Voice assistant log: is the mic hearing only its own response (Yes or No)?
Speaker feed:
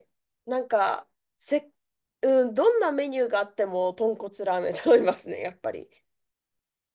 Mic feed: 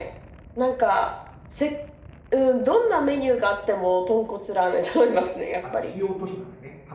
No